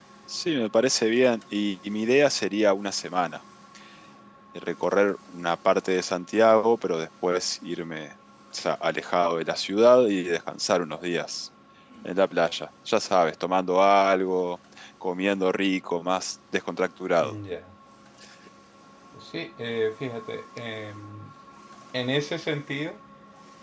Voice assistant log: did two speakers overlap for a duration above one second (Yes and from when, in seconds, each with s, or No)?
No